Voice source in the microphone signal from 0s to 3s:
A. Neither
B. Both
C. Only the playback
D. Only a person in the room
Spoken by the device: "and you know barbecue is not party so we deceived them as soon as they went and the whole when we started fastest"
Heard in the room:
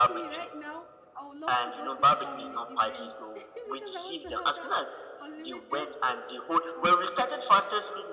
B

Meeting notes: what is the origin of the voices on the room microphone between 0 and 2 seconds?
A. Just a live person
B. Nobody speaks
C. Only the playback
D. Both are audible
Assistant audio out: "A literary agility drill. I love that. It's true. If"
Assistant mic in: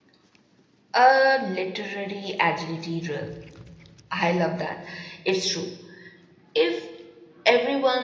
C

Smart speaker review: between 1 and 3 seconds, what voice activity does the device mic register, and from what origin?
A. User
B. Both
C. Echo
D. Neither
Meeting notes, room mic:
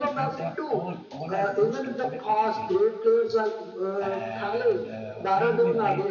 B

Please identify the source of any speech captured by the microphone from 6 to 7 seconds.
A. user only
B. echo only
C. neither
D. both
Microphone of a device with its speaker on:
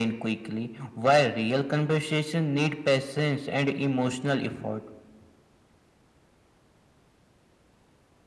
C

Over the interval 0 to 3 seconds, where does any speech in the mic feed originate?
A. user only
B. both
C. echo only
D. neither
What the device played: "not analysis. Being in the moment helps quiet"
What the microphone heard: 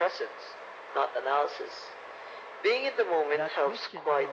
C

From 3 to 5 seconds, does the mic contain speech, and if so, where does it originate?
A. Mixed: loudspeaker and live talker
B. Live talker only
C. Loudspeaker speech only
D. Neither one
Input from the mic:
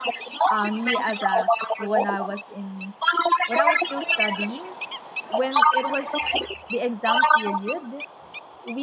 A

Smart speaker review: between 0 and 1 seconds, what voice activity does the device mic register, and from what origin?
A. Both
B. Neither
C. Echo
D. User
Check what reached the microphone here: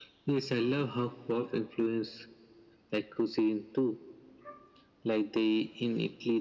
C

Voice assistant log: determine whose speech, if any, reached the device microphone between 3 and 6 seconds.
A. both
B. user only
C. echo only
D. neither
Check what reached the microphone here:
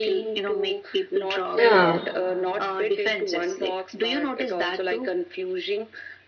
C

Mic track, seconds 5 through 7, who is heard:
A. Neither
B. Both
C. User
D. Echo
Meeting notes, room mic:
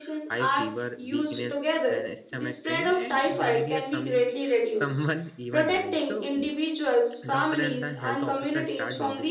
B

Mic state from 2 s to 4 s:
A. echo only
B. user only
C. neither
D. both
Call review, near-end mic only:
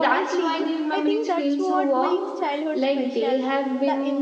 D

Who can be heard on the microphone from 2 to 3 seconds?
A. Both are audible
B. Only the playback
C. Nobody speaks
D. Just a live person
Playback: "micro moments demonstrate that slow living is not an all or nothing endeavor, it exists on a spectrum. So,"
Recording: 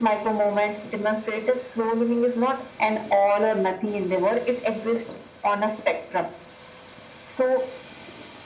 B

